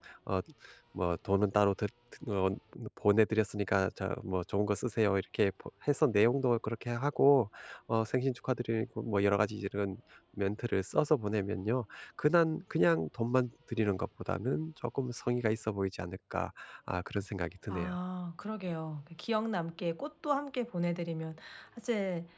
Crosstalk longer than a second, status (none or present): none